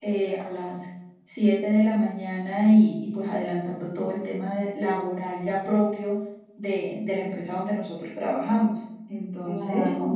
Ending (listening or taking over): taking over